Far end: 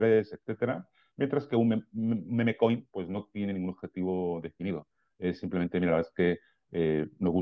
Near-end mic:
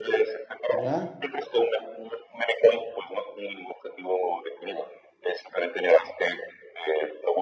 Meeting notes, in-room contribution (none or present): present